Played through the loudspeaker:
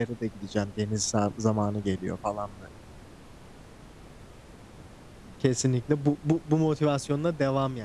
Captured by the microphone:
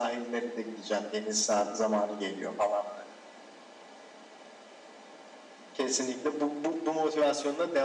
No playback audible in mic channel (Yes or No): No